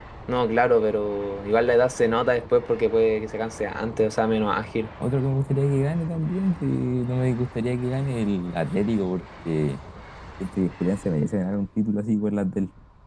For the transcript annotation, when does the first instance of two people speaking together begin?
none

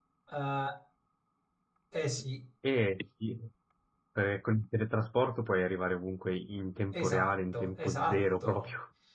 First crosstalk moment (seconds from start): 6.9 s

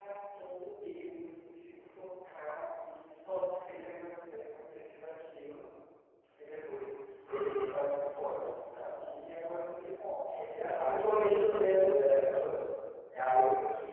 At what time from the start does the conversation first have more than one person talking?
10.5 s

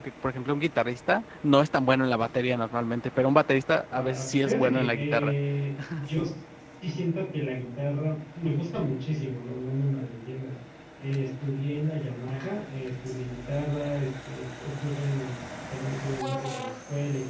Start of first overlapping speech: 3.9 s

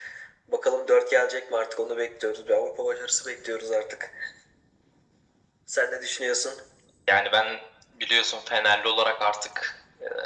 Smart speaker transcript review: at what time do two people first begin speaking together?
none

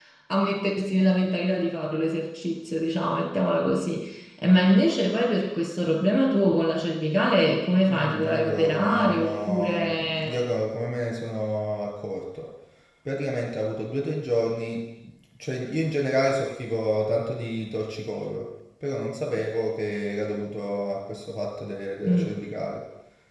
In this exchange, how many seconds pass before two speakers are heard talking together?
7.9 s

